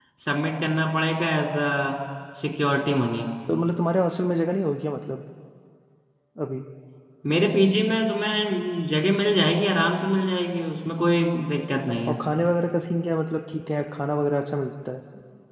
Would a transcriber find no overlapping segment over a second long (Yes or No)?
Yes